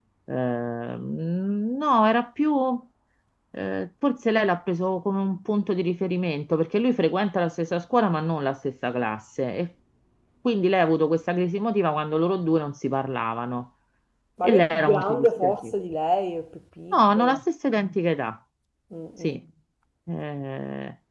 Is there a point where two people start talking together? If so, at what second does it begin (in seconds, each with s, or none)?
14.4 s